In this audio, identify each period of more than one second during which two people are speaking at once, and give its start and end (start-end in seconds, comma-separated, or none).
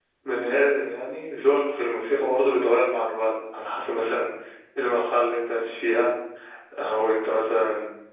none